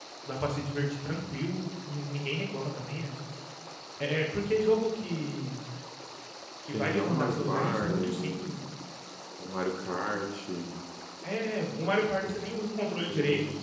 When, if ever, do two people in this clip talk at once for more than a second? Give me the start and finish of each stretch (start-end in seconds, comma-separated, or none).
6.7-8.6